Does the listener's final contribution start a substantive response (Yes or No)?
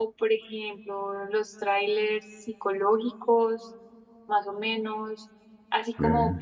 No